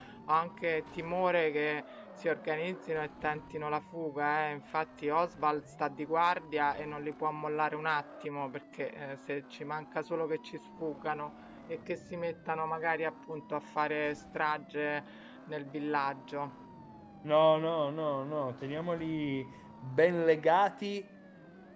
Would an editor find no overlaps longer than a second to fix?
Yes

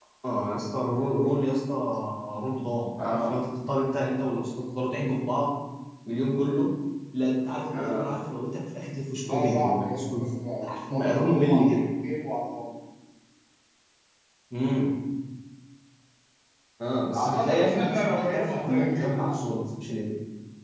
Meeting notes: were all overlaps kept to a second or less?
No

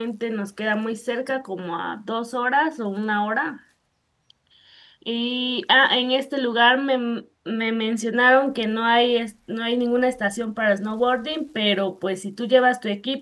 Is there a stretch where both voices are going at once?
No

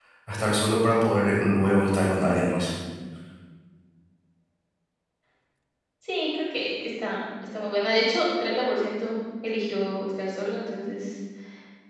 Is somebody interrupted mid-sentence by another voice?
No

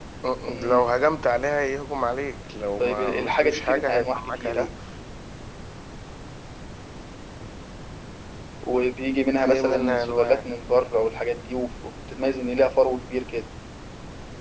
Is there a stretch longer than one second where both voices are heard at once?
Yes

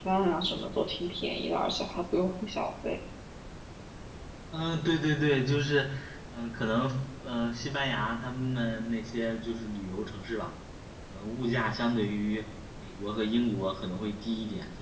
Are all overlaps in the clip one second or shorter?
Yes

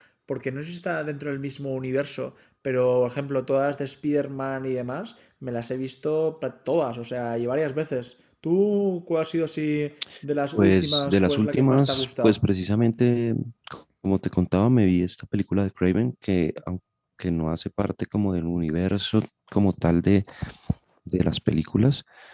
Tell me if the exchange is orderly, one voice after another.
No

